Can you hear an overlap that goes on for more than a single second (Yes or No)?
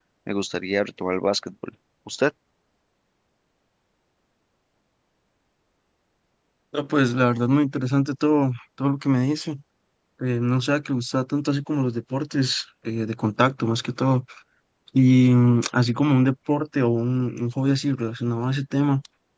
No